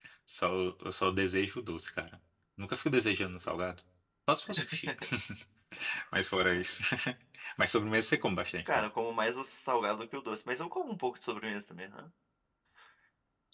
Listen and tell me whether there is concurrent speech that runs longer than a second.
No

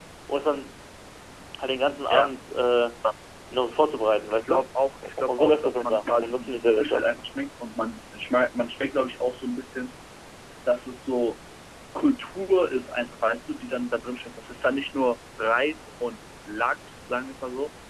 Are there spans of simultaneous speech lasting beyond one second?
Yes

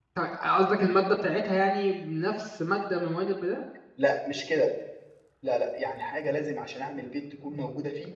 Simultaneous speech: No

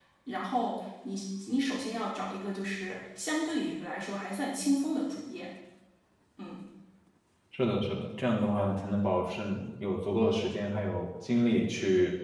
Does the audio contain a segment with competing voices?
No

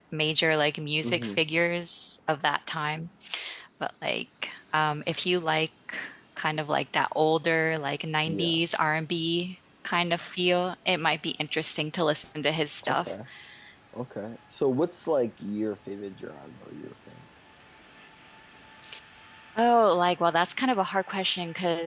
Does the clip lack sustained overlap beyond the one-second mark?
Yes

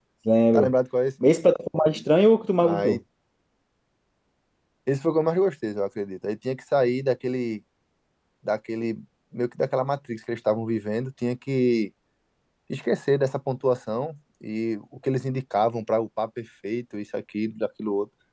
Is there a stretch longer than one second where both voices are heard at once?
No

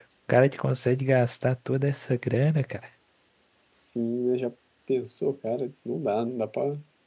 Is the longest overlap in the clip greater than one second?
No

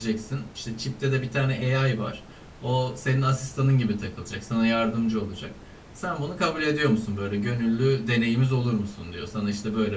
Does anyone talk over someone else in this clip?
No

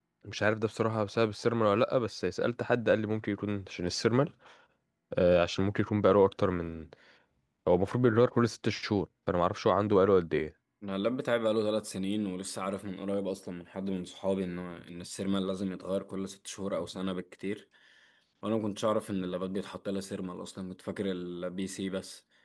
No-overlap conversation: Yes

